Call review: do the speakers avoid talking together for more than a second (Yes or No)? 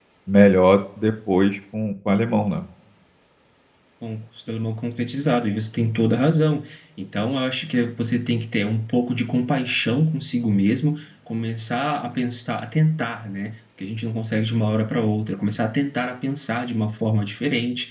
Yes